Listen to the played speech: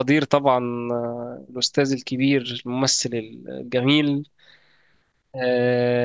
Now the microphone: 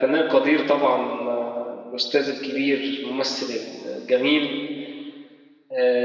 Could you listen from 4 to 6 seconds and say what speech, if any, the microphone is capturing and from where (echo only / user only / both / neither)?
echo only